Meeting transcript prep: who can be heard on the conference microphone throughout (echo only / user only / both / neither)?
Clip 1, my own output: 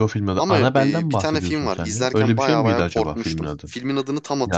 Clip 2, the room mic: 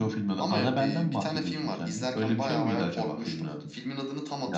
echo only